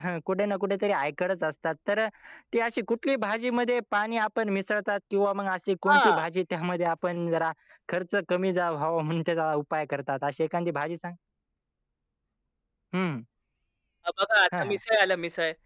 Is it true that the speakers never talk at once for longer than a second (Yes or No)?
Yes